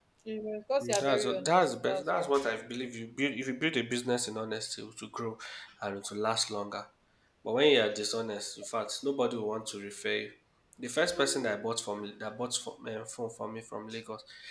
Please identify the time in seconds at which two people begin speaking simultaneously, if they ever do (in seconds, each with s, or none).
1.0 s